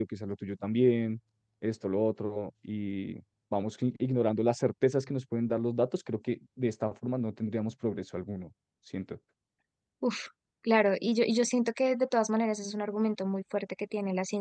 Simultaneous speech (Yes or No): No